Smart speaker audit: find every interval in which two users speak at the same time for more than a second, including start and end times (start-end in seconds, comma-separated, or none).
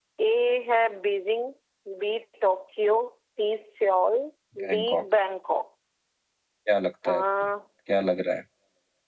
none